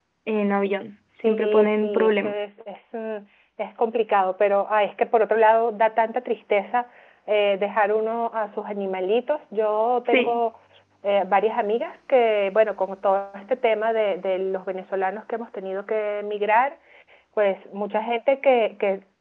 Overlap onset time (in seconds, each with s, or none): 1.2 s